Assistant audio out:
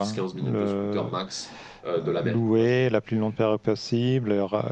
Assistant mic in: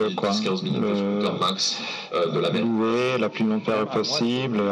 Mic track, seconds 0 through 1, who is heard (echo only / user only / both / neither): echo only